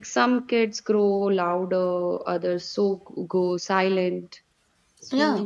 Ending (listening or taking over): taking over